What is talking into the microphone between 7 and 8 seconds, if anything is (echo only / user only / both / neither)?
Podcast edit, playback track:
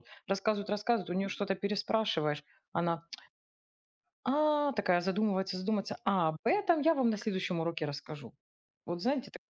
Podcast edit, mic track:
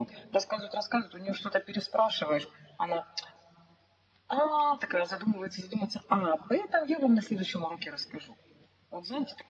echo only